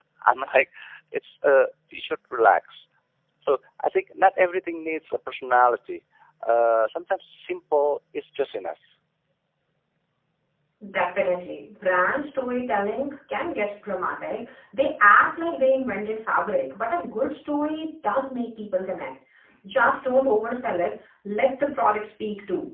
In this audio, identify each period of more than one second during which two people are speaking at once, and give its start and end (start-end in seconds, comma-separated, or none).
none